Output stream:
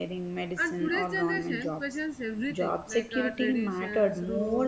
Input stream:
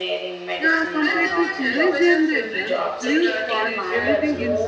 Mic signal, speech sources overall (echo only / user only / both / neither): both